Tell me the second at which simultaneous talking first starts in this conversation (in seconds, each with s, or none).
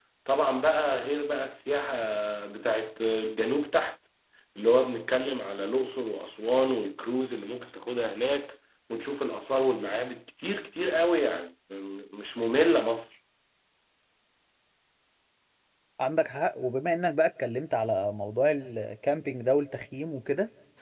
none